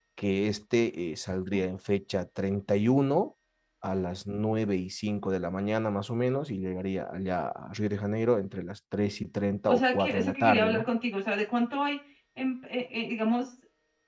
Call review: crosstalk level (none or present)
present